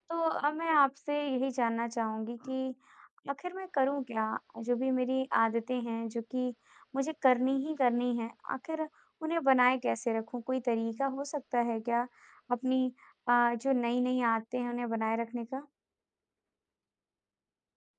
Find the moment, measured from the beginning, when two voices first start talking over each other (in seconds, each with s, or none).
none